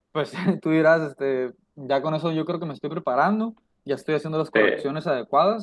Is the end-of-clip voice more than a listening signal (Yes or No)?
No